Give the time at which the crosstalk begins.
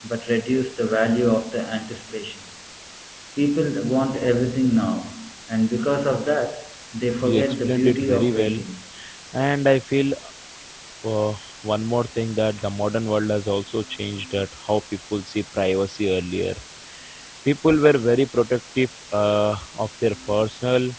7 s

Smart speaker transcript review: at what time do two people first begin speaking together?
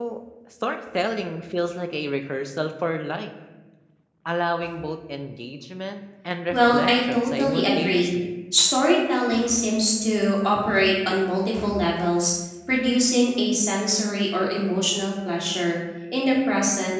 7 s

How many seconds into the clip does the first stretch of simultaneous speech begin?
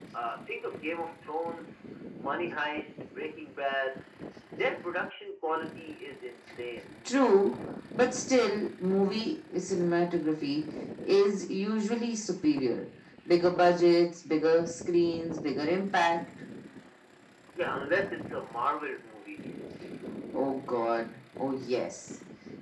none

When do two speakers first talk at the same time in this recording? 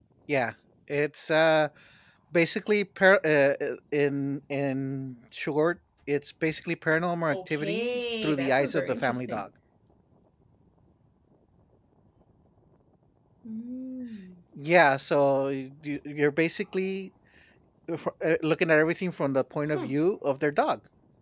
7 s

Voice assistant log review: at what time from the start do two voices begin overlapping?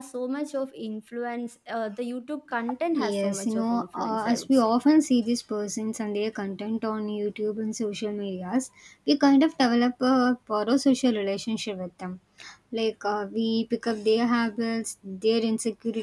3 s

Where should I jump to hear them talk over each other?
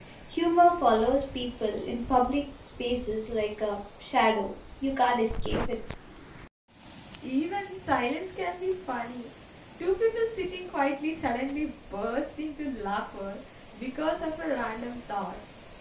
none

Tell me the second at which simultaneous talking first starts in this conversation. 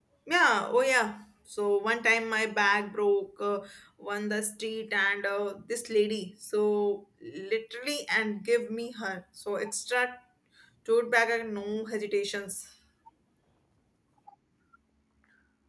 none

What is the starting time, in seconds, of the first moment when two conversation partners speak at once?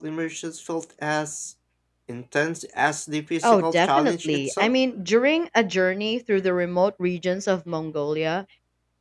3 s

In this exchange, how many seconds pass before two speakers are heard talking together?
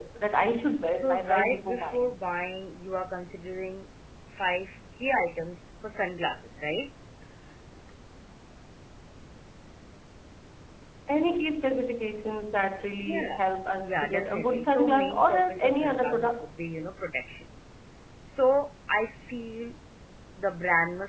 1 s

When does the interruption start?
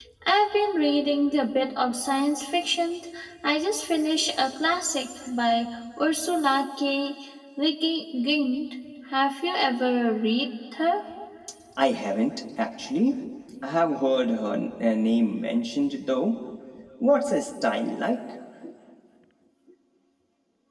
none

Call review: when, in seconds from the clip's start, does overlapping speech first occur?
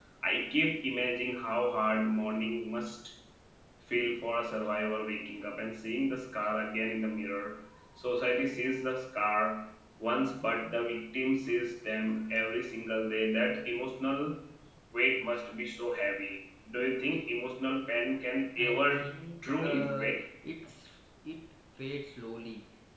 19 s

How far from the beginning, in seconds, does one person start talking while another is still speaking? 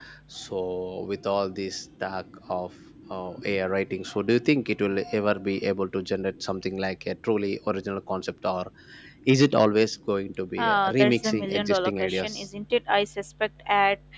11 s

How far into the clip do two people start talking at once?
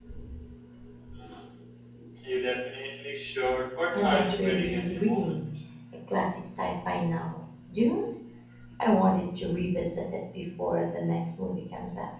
4 s

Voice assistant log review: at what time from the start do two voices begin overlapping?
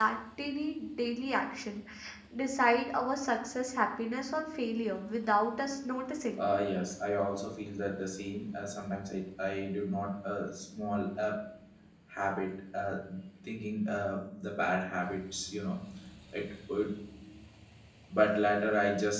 none

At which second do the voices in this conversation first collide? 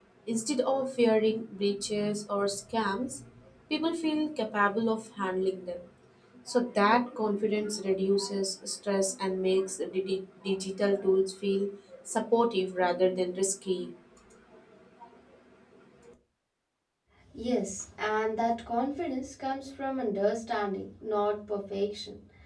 none

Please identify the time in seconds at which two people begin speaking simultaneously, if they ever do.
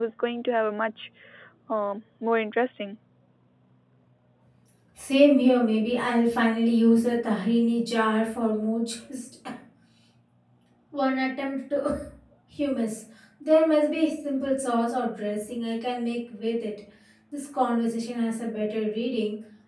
none

